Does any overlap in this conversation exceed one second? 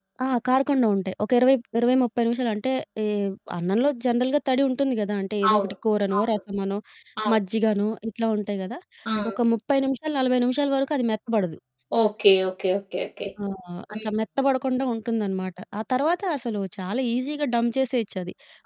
No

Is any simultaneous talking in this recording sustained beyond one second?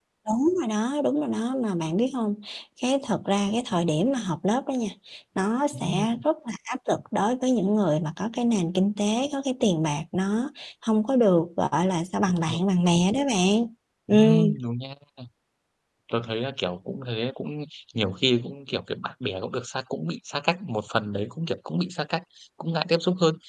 No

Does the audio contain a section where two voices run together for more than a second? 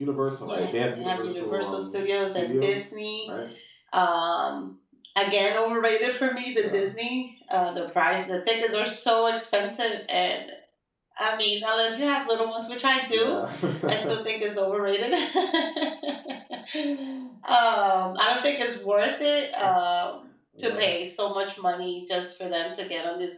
Yes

